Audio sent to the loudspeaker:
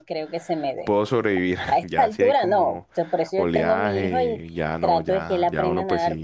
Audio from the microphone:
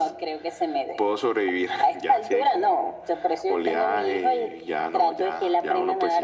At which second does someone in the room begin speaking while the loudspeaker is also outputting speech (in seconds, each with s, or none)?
none